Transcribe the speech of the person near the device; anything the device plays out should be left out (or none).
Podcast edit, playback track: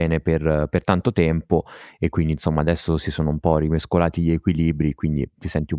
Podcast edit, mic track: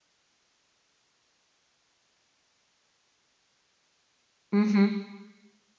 mh-mh.